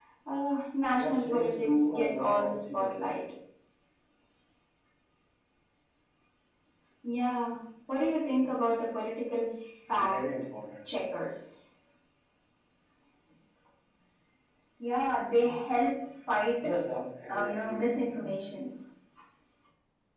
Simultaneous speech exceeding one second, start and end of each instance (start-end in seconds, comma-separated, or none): 1.0-2.9